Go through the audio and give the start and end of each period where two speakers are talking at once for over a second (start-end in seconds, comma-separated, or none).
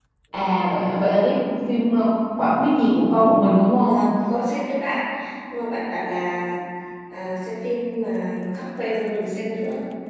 none